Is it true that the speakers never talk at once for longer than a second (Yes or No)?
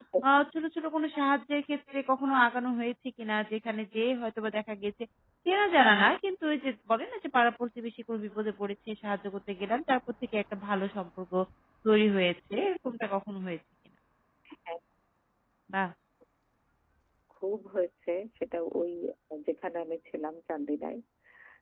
Yes